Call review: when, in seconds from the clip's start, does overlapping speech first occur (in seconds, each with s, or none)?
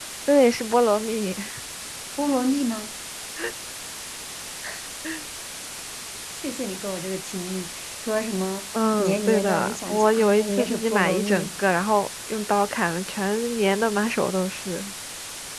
9.0 s